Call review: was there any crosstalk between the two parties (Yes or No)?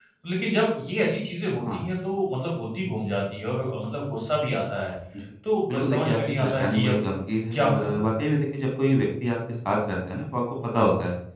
Yes